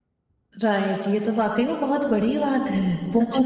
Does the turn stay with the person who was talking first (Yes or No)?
No